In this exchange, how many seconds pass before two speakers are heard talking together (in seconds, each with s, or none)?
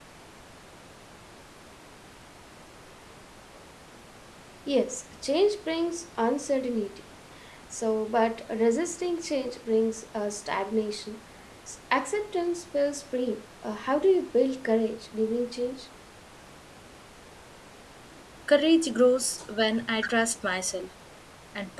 none